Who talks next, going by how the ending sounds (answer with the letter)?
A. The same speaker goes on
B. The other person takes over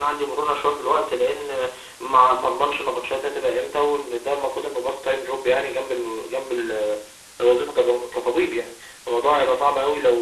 A